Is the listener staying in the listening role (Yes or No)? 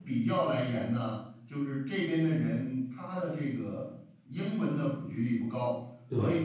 Yes